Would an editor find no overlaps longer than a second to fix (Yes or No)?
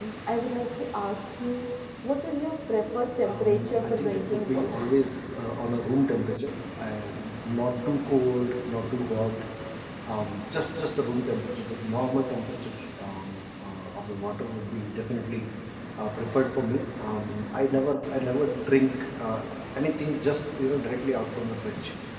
No